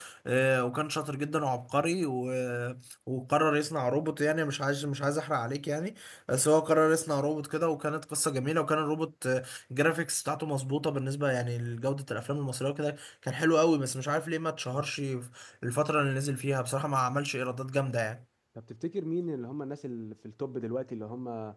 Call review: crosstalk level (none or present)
none